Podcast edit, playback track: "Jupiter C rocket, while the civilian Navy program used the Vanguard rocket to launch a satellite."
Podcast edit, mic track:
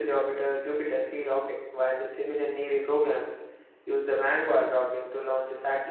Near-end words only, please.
none

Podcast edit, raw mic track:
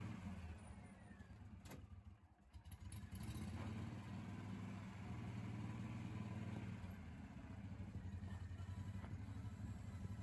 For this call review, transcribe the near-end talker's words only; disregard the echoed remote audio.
none

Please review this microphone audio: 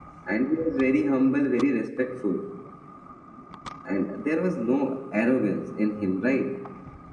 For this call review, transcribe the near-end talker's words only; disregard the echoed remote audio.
none

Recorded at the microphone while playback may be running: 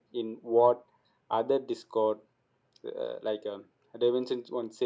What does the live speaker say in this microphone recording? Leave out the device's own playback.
none

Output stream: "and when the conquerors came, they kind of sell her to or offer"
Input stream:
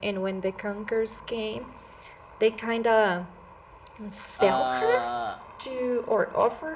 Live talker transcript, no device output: uh

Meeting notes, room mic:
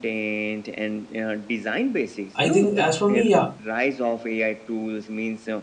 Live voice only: I think as for me, yeah,

